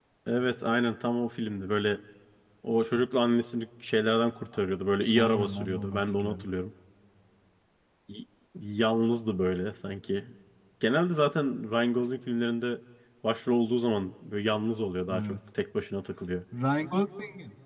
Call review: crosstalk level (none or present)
present